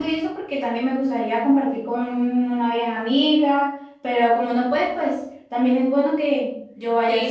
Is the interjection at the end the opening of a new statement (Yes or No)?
Yes